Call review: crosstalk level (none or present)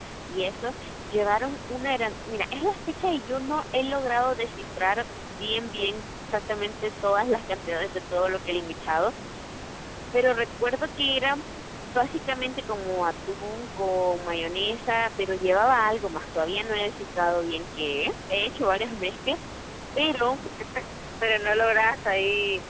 none